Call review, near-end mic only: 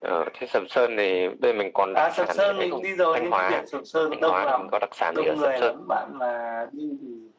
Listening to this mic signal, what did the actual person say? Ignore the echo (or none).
none